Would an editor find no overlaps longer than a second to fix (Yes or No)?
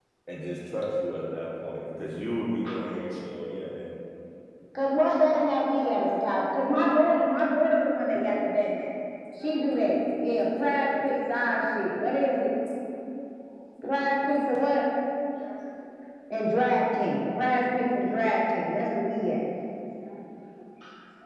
Yes